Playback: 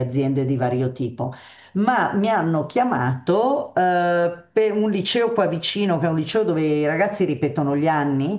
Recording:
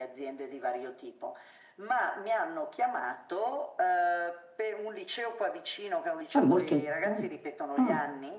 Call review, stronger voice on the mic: user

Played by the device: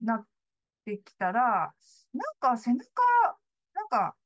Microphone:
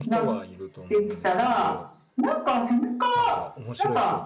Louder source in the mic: echo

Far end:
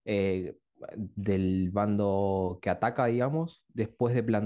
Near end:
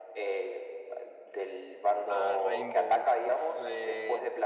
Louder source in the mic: echo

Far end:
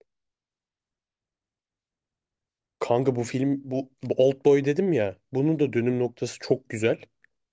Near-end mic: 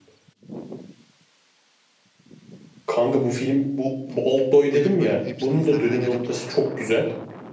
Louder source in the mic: echo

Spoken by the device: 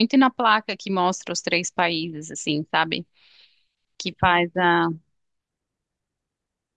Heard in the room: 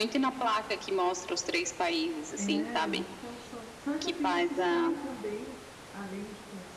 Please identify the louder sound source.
echo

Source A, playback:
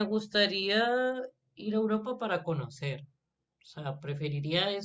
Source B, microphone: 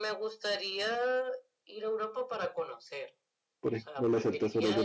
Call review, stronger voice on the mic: user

